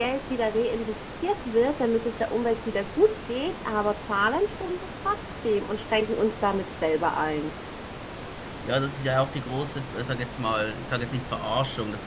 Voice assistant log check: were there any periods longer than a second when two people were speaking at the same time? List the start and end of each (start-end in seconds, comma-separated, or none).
none